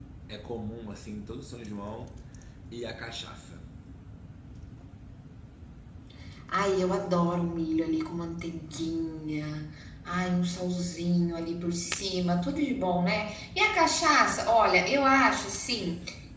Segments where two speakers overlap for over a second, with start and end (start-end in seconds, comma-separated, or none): none